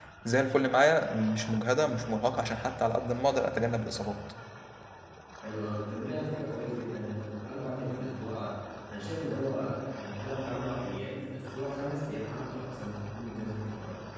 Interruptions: none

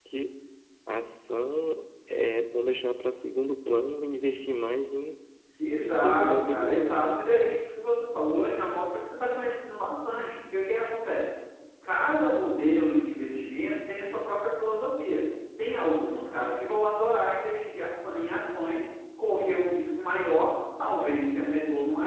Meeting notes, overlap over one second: present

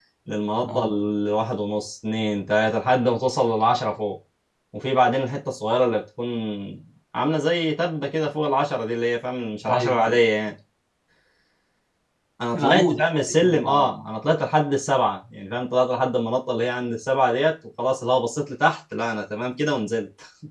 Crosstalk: present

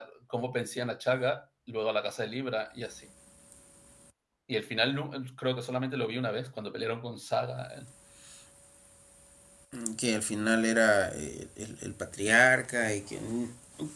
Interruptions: none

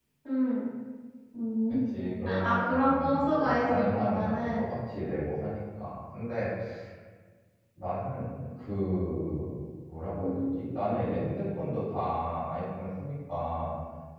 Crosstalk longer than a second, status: present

